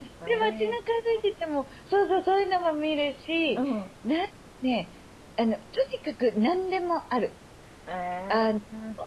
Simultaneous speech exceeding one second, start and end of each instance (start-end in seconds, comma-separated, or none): none